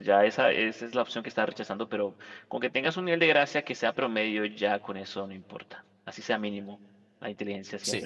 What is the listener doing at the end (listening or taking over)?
taking over